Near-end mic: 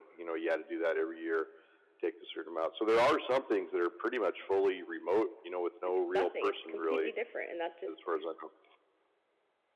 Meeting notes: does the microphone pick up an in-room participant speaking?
Yes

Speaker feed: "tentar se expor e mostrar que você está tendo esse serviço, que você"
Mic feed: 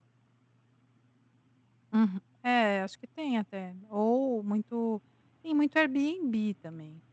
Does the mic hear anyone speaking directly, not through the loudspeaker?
Yes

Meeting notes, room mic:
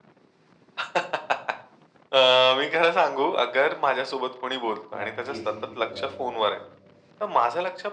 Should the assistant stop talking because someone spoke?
Yes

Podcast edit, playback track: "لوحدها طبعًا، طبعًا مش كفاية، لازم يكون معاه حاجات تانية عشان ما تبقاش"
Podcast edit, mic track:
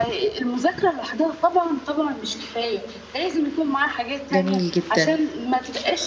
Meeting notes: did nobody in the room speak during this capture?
No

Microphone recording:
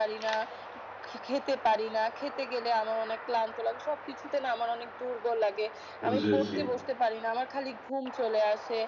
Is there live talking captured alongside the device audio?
Yes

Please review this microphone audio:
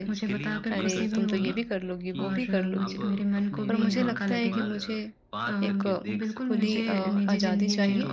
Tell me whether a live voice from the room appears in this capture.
Yes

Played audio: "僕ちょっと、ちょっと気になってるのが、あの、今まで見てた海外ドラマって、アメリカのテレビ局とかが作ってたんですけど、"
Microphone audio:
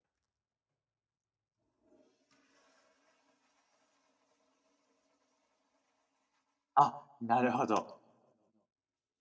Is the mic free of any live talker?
No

